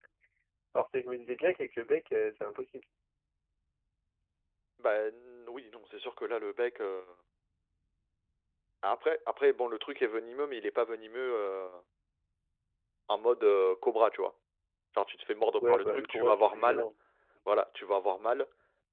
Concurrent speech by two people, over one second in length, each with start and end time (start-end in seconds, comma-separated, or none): 15.6-16.9